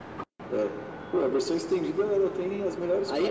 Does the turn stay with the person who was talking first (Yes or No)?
No